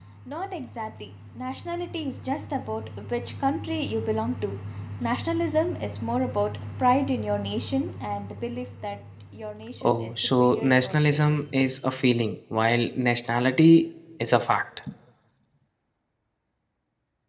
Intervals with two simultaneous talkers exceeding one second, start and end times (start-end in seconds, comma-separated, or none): 9.8-11.4